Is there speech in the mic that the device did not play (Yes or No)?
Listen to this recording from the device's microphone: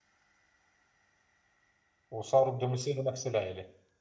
Yes